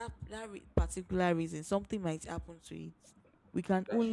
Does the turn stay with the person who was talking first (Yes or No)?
Yes